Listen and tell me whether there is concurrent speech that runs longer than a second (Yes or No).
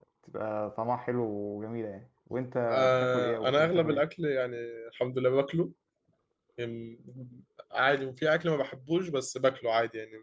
Yes